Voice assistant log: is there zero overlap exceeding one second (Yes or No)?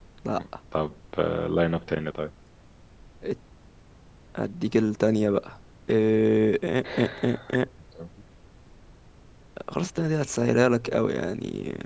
Yes